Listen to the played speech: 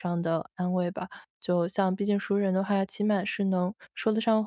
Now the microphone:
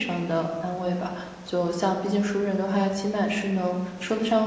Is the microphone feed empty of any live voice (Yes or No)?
Yes